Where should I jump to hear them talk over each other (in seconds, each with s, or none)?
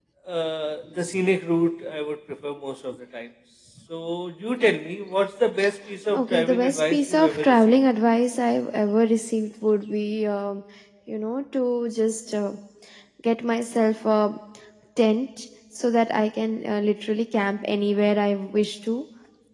6.1 s